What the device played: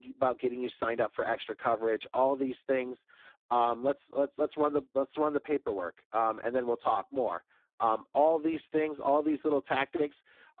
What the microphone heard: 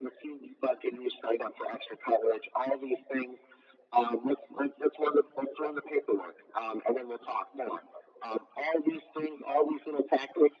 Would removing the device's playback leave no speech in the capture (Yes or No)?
Yes